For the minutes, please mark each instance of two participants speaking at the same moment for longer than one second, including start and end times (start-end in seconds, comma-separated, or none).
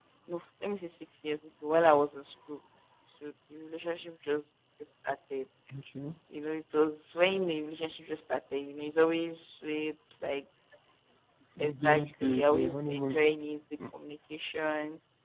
11.7-13.2